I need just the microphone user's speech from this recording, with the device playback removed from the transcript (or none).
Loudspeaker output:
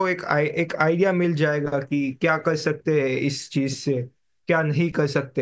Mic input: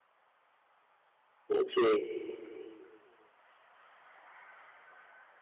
जी